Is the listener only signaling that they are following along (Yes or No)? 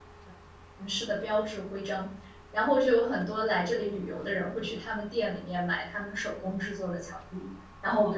Yes